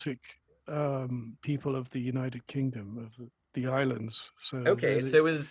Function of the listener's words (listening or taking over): taking over